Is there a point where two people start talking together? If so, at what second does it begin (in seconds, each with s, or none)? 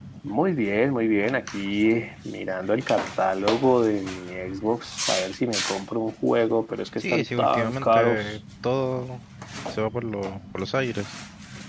7.0 s